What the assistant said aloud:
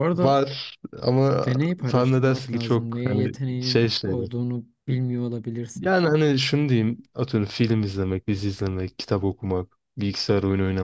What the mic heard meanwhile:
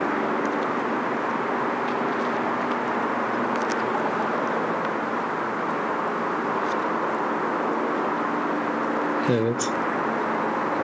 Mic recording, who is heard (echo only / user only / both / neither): user only